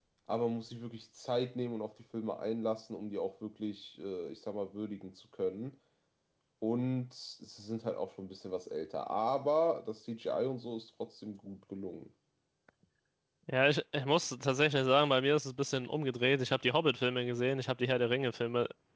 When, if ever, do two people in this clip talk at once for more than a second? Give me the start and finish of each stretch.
none

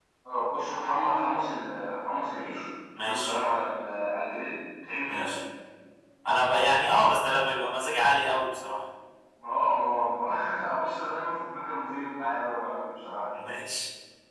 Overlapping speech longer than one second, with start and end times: none

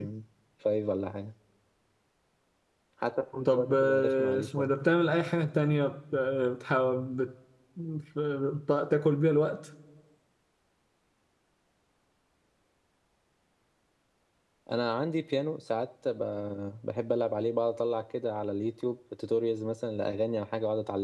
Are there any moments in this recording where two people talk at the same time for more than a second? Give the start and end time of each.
3.5-4.7

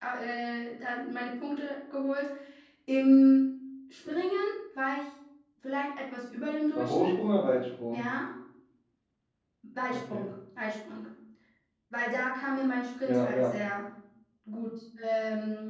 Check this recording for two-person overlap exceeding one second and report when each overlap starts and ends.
none

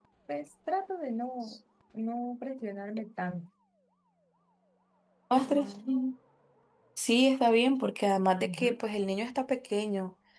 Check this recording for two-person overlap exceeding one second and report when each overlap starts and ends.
none

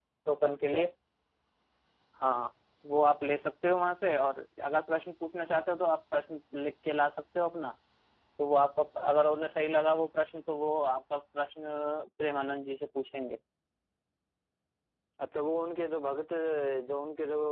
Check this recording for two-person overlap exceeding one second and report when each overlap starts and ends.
none

